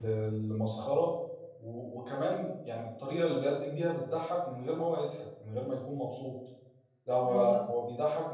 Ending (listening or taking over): listening